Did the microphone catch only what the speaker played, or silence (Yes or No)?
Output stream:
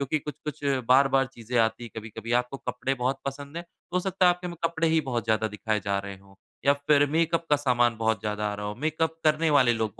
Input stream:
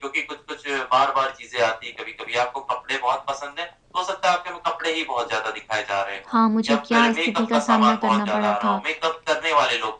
No